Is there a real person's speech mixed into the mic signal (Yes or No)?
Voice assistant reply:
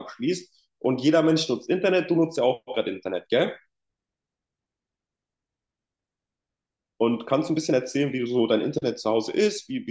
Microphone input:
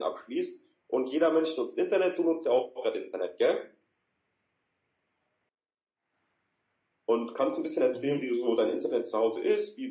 Yes